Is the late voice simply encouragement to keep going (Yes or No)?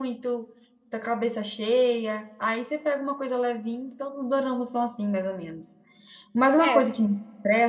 Yes